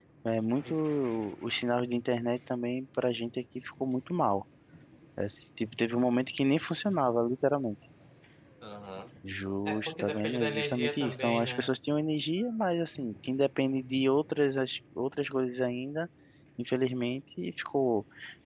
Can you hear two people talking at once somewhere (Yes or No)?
Yes